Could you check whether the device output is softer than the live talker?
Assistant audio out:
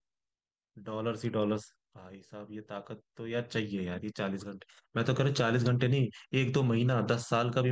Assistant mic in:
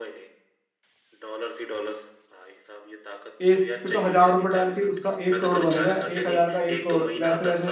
Yes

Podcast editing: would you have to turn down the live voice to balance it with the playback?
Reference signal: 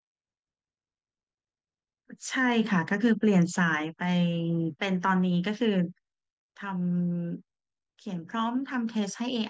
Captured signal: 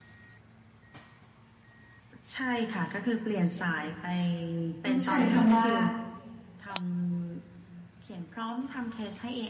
Yes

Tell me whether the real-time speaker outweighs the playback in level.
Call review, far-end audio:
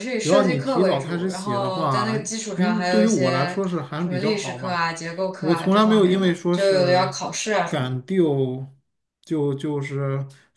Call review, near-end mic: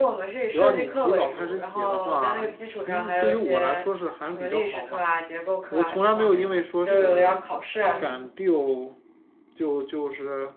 No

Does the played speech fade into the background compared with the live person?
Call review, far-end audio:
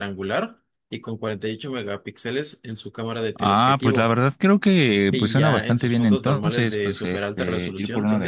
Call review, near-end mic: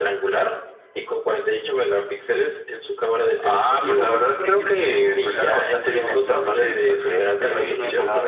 No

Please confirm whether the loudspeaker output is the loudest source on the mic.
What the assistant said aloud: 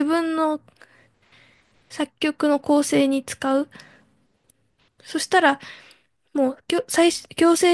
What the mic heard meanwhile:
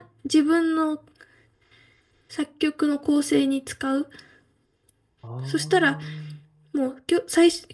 Yes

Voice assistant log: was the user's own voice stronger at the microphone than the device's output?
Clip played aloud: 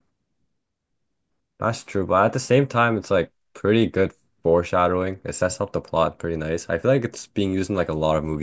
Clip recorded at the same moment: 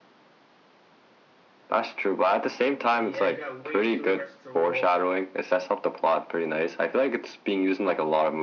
No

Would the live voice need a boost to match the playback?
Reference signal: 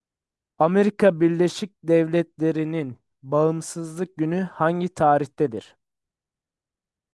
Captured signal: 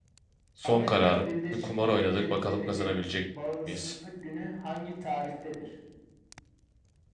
No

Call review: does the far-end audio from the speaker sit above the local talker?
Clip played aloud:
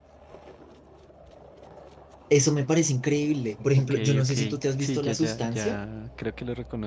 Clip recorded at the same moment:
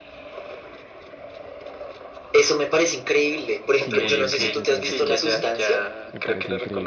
Yes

